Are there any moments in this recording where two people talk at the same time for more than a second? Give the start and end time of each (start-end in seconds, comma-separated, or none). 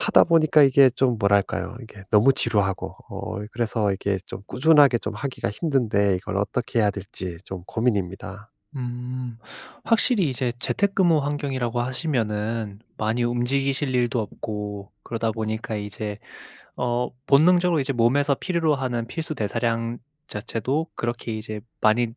none